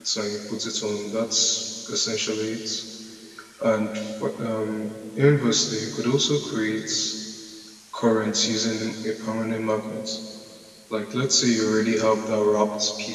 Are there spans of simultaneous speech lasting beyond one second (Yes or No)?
No